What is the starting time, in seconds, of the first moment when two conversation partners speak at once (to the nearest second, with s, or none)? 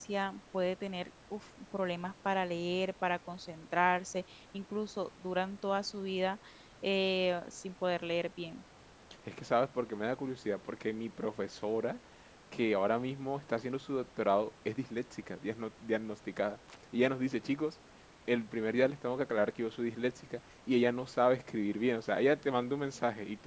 none